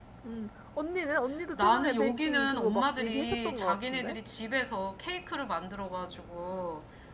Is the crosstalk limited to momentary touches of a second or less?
No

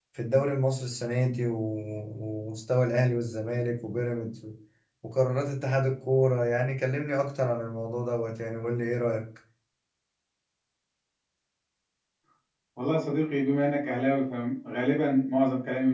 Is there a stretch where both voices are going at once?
No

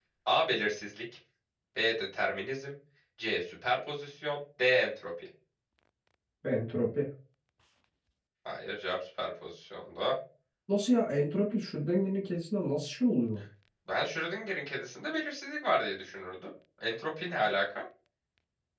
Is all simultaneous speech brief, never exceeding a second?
Yes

